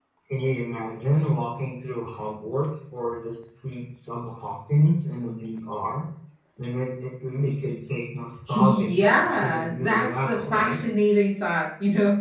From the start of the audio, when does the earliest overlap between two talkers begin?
8 s

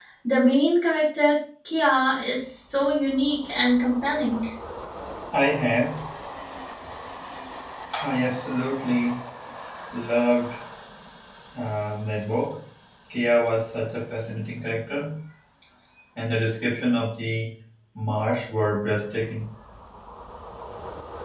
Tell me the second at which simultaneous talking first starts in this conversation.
none

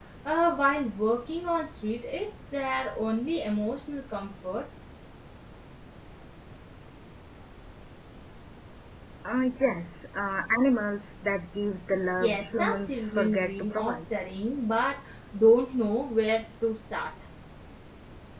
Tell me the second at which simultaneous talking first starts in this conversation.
12 s

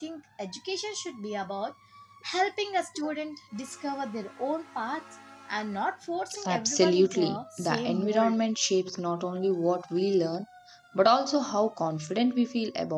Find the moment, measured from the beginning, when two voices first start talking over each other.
6 s

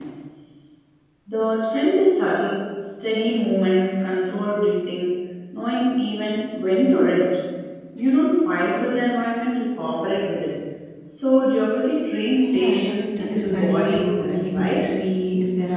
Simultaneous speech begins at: 13 s

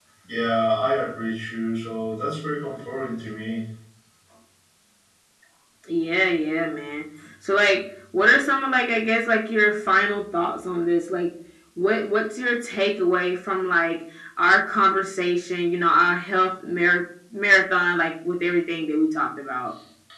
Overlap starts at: none

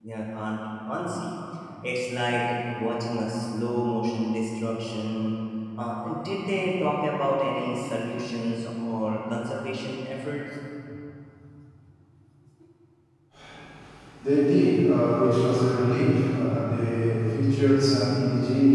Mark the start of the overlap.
none

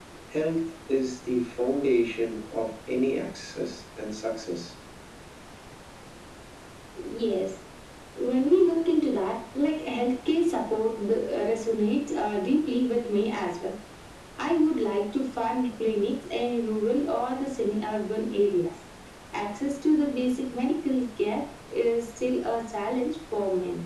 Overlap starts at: none

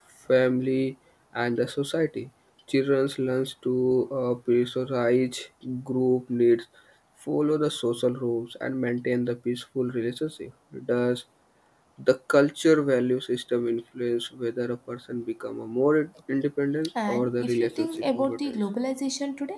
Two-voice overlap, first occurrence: 17 s

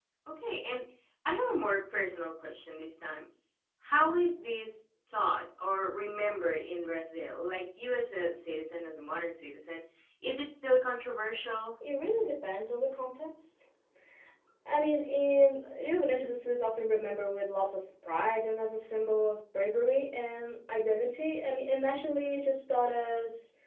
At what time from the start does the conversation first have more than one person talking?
none

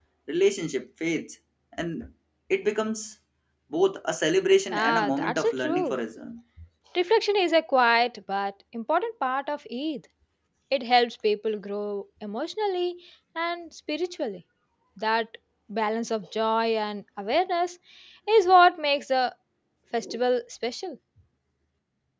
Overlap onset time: 5 s

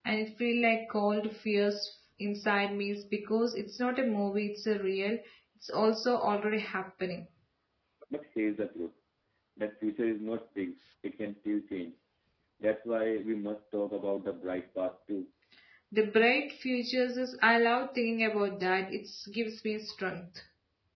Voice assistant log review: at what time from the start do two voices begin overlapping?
none

